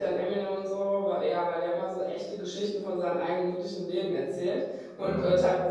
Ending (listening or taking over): listening